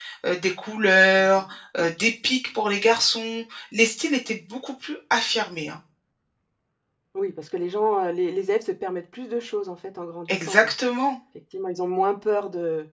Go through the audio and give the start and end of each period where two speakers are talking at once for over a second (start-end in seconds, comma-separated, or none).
none